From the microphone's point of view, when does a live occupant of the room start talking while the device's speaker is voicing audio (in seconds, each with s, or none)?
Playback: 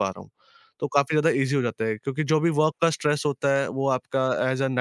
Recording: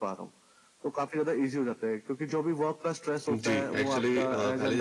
3.3 s